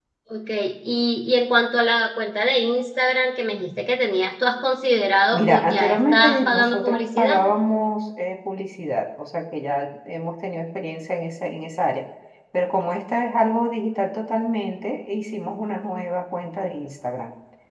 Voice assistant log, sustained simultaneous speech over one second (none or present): present